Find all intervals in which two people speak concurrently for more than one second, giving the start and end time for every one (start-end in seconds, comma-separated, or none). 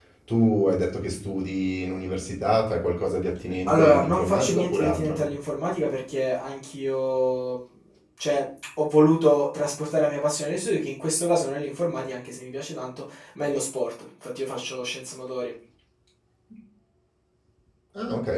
3.7-5.2